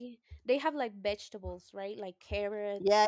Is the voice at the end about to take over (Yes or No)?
Yes